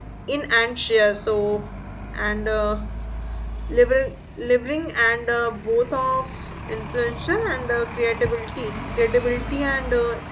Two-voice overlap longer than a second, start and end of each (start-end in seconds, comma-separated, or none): none